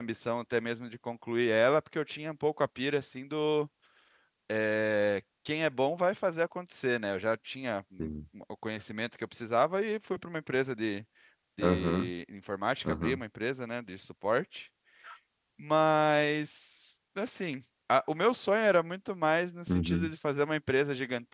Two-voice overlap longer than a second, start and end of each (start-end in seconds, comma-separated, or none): none